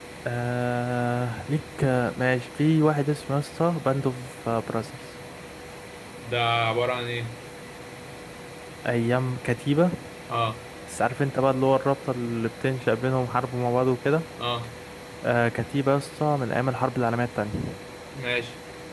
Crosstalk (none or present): none